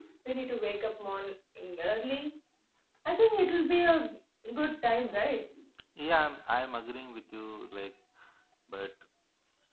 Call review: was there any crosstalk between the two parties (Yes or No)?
No